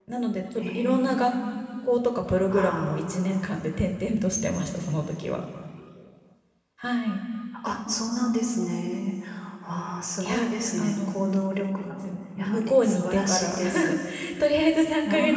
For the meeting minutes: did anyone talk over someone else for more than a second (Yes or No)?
Yes